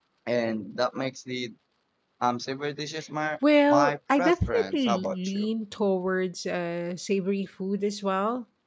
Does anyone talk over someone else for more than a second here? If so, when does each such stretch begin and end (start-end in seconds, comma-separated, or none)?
3.7-5.5